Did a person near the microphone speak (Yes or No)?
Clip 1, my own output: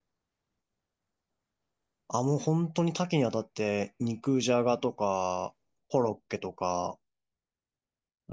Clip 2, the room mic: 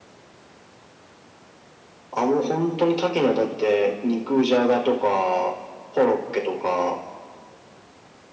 No